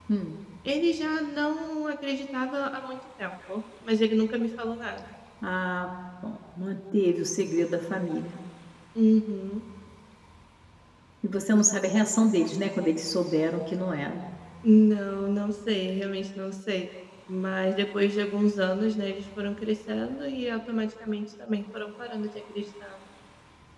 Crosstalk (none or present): none